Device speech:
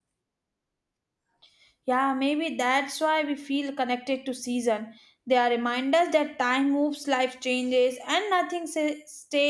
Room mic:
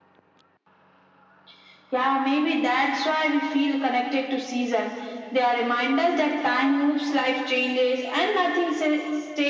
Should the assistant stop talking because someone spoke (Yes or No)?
No